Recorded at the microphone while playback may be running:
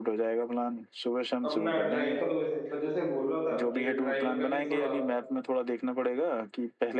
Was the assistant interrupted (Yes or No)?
Yes